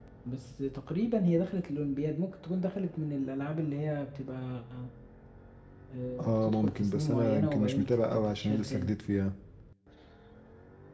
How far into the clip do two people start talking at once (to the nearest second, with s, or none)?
6 s